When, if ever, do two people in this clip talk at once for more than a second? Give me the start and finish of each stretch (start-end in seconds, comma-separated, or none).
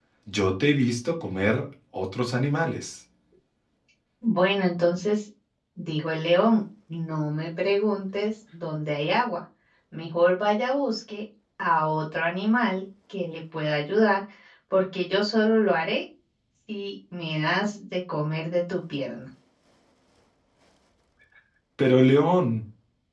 none